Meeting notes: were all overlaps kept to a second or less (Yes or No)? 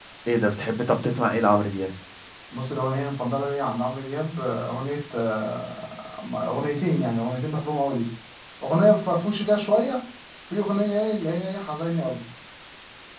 Yes